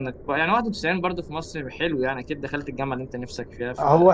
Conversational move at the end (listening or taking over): taking over